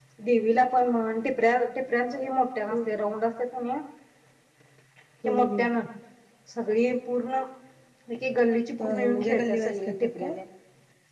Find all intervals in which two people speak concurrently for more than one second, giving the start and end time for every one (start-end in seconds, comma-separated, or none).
8.8-10.3